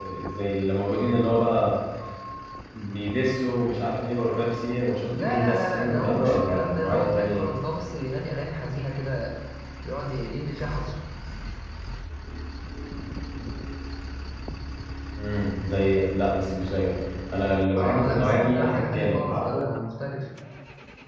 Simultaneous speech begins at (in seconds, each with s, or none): 5.2 s